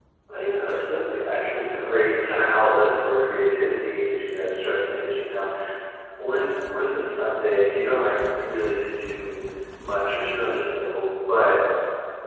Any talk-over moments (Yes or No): Yes